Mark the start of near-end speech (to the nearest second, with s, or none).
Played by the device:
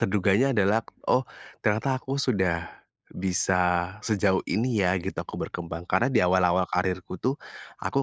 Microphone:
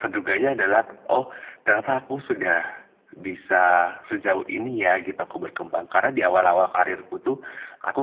none